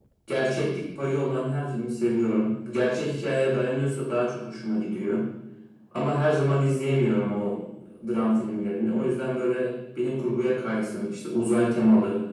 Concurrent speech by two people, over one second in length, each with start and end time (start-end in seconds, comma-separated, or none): none